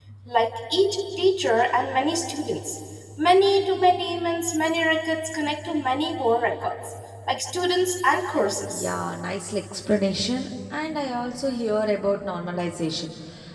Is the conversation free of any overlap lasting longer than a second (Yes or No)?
Yes